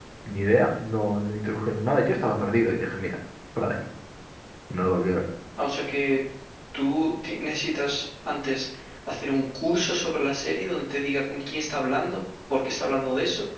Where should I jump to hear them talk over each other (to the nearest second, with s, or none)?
none